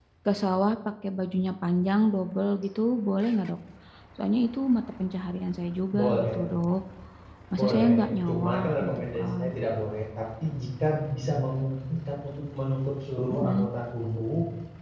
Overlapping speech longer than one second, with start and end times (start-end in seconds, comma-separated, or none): 7.6-9.4